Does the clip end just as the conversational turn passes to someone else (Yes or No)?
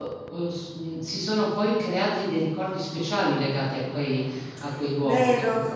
Yes